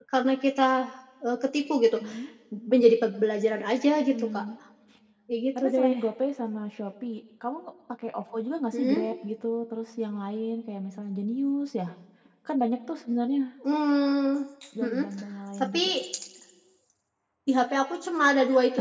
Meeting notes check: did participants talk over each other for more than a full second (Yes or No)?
No